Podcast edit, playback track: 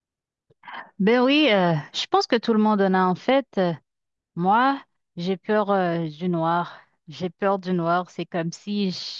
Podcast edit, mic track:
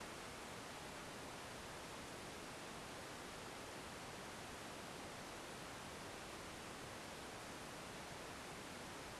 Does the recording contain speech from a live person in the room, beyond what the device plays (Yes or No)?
No